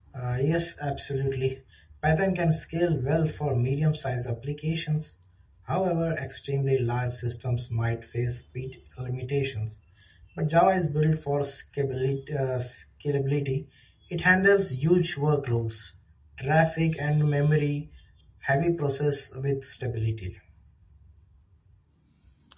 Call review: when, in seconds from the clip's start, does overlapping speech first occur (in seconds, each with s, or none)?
none